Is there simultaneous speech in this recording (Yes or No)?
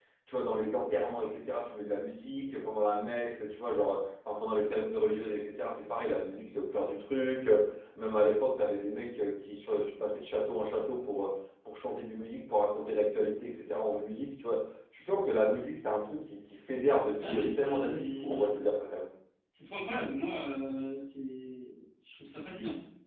Yes